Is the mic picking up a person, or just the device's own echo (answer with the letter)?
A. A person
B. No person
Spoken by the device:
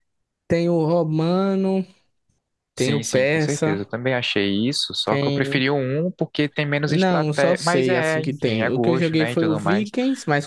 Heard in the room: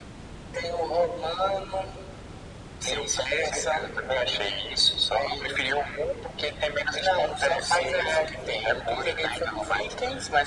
B